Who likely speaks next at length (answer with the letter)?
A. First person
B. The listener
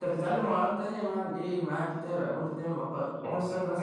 B